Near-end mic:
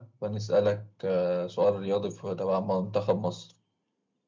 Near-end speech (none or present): none